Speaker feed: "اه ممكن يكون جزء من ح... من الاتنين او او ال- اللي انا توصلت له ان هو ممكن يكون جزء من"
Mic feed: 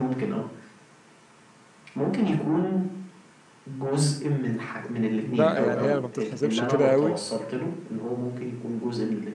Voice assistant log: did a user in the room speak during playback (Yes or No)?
Yes